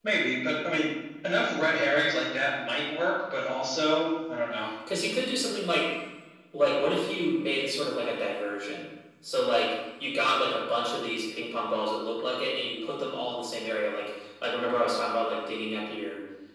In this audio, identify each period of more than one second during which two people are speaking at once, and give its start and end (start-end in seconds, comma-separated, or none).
none